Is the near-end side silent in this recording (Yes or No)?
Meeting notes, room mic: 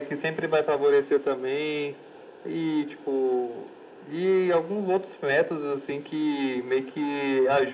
Yes